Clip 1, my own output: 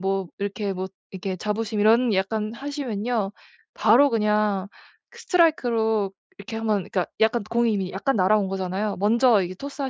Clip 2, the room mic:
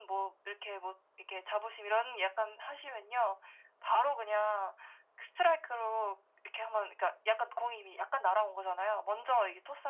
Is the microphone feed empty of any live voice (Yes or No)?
Yes